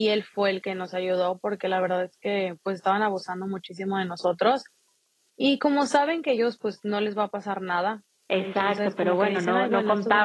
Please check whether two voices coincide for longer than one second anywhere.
Yes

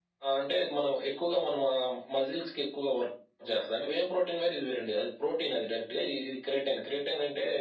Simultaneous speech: No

